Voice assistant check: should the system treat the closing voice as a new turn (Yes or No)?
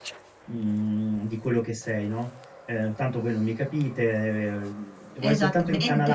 No